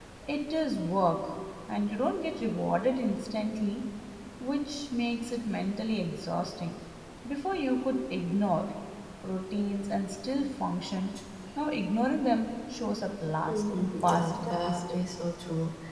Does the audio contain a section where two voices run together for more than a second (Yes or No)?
Yes